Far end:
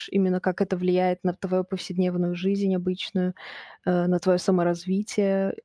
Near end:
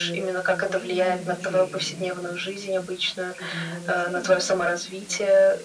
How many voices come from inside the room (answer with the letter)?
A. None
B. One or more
B